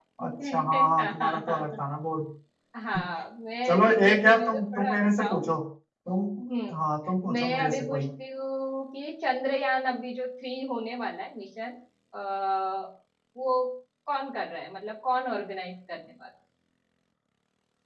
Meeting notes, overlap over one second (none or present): present